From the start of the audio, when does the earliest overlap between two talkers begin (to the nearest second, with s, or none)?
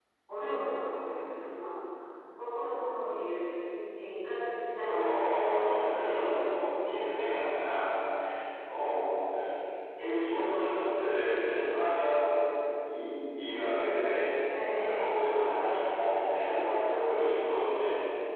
5 s